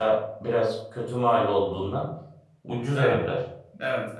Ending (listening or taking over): taking over